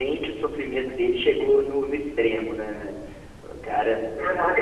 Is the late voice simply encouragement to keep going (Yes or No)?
No